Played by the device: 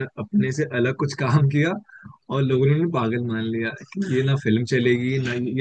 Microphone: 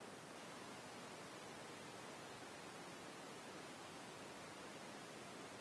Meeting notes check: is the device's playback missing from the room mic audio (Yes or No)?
Yes